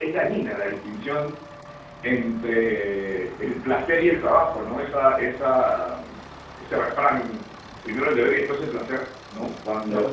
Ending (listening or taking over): listening